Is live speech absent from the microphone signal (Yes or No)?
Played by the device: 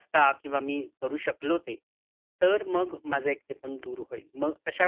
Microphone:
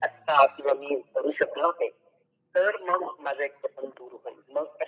Yes